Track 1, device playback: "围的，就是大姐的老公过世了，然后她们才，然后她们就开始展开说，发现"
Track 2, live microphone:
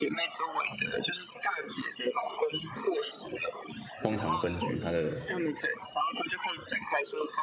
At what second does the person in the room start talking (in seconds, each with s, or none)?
4.0 s